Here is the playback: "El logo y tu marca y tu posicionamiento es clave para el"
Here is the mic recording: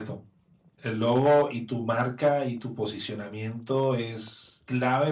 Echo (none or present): present